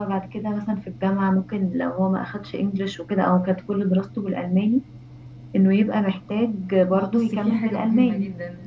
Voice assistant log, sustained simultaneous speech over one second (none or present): present